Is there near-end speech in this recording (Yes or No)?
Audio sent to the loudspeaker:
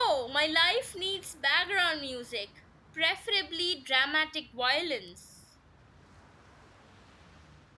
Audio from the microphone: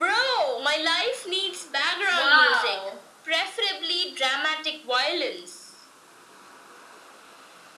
Yes